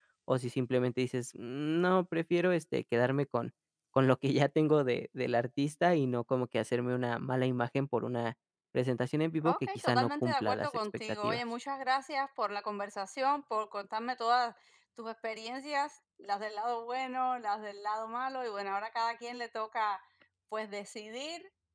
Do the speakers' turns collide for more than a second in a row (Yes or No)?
Yes